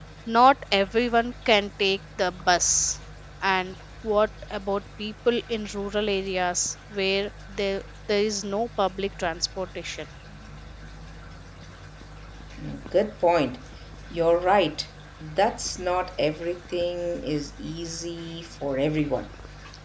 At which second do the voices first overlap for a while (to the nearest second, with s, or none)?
none